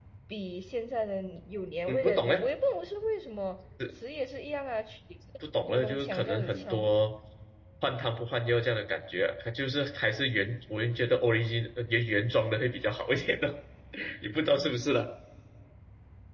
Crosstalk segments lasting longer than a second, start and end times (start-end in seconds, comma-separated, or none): 5.7-6.9